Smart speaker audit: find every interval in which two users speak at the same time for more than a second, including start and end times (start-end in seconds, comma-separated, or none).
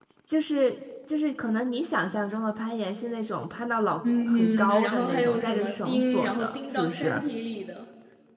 4.3-7.2